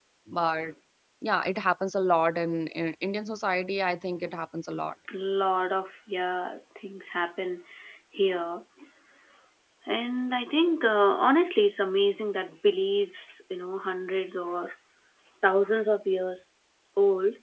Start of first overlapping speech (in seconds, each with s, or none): none